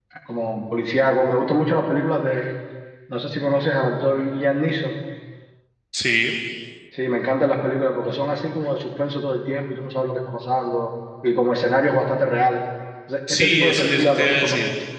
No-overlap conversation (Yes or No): No